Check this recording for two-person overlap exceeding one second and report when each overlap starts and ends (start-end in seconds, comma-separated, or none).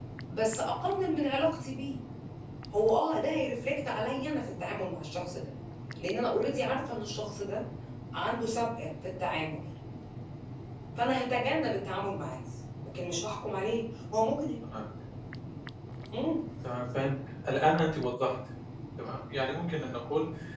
none